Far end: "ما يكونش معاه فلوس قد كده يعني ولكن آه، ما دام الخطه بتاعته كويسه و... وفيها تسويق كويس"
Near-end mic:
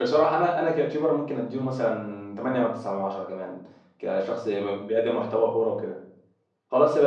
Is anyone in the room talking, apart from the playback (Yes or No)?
Yes